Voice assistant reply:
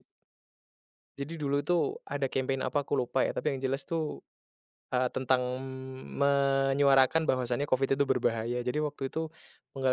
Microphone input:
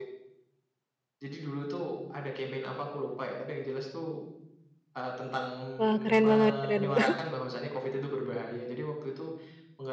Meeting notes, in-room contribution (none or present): present